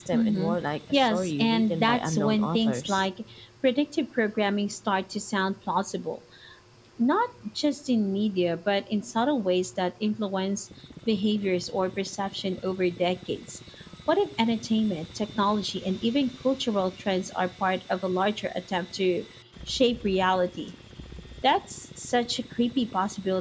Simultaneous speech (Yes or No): Yes